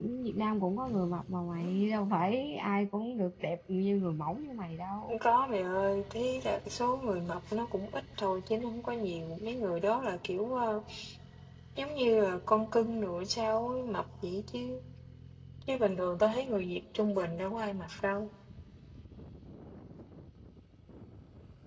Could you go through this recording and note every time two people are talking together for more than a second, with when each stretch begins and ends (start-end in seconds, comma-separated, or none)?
none